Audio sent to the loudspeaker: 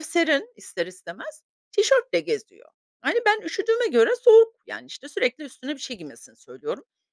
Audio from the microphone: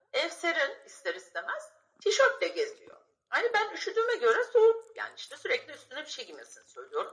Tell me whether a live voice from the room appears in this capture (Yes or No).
No